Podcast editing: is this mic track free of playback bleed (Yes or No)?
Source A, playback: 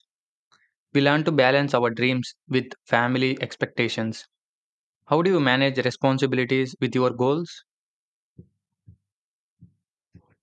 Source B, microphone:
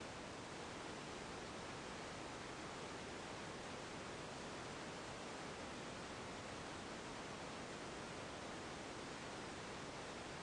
Yes